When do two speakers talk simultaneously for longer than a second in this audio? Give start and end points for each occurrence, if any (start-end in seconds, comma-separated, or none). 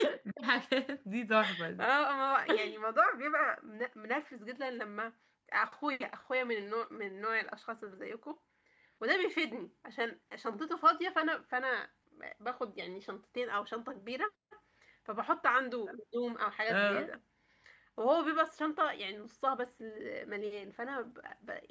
none